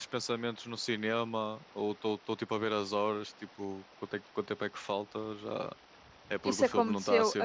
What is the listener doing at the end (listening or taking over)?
taking over